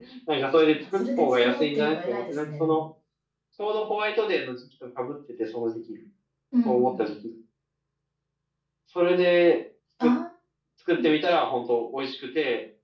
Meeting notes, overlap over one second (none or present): present